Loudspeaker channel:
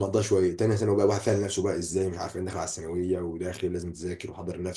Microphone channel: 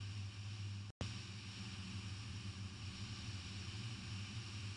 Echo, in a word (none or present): none